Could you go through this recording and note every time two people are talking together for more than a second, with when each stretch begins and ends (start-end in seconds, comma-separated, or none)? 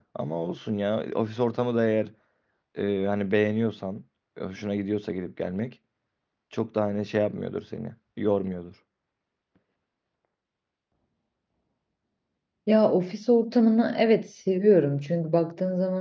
none